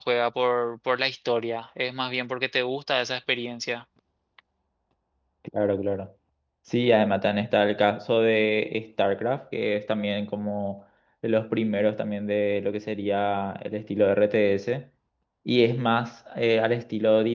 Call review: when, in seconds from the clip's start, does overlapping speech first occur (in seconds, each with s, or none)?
none